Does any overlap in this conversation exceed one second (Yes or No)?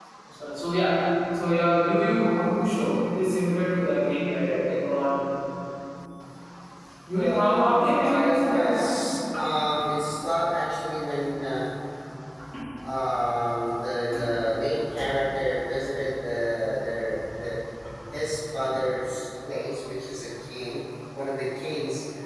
Yes